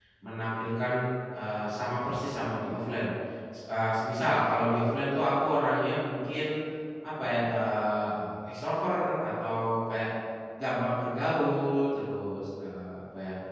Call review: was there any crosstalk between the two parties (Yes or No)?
No